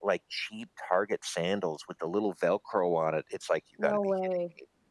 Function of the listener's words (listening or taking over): listening